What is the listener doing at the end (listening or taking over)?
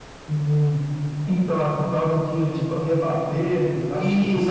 taking over